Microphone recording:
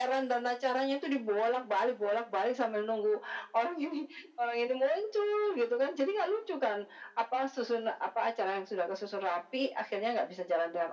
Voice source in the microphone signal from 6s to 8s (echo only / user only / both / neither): echo only